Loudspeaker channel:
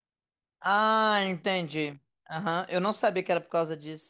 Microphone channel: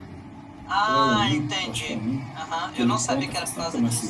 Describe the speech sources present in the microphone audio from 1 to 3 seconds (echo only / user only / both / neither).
both